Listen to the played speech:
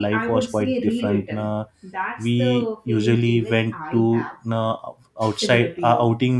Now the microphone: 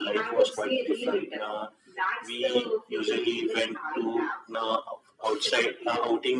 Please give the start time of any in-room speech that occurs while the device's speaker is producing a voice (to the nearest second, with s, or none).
none